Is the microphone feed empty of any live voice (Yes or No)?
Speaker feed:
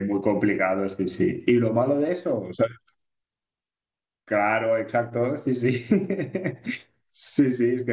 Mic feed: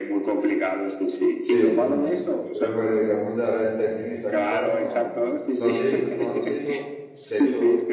No